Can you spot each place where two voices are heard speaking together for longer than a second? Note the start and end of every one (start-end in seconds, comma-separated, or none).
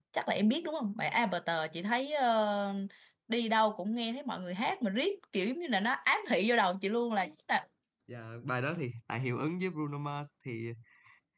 none